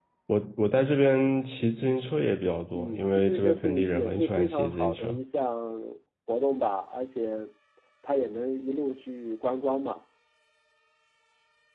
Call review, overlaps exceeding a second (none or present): present